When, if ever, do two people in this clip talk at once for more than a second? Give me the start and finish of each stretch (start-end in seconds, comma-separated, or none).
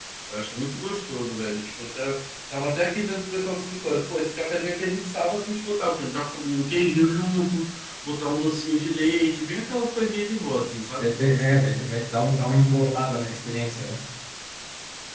none